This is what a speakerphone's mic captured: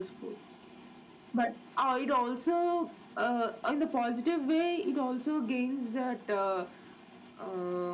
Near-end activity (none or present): none